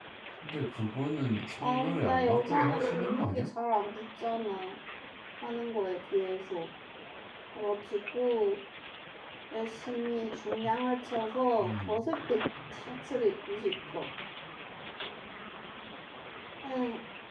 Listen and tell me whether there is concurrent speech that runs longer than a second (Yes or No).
Yes